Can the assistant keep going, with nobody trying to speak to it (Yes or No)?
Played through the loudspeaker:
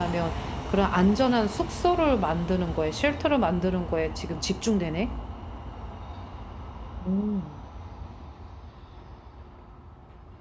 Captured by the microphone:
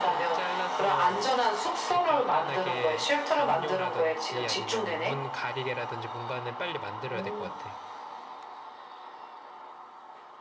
No